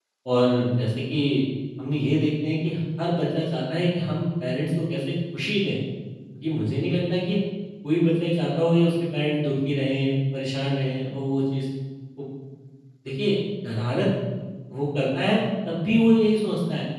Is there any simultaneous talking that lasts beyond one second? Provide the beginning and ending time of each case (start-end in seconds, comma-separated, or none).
none